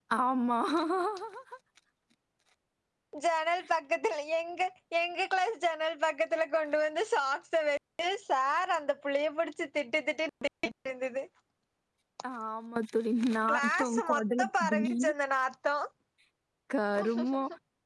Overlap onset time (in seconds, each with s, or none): 13.5 s